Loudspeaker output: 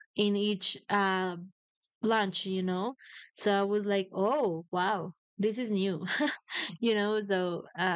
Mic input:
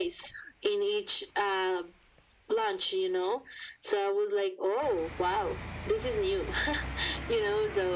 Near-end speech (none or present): none